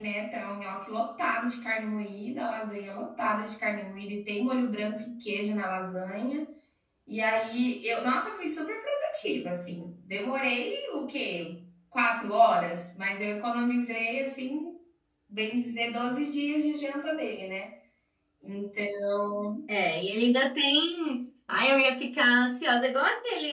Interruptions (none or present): none